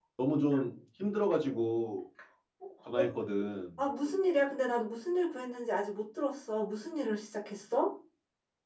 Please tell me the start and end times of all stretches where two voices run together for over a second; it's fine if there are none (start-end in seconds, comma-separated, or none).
none